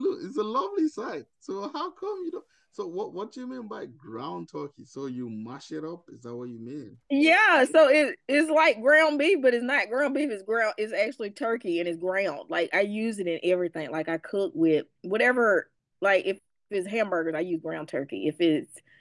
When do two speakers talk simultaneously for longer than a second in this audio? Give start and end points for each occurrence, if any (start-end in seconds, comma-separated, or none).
none